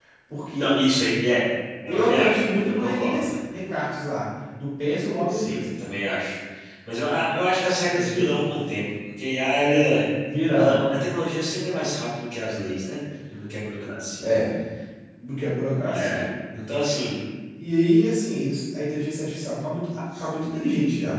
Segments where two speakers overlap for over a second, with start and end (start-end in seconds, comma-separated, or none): 1.9-3.3